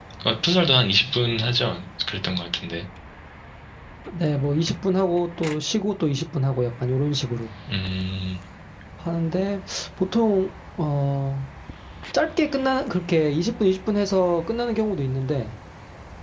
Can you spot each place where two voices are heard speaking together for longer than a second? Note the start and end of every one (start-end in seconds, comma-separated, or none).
none